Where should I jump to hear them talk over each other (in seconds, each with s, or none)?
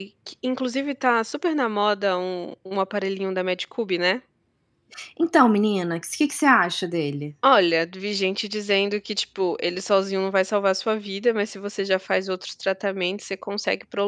none